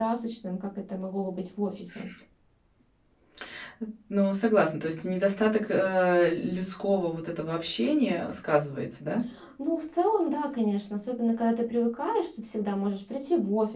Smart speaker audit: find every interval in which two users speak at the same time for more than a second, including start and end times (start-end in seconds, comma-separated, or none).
none